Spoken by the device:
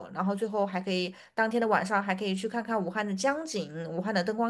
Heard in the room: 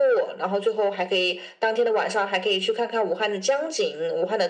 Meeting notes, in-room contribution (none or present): none